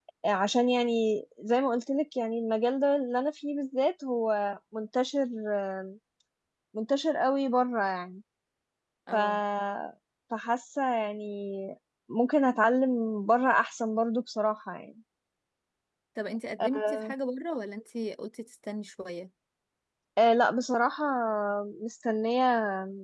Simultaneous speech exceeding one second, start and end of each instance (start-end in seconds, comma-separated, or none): none